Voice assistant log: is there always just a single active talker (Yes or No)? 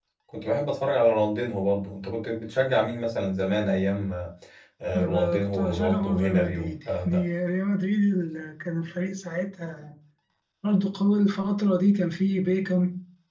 No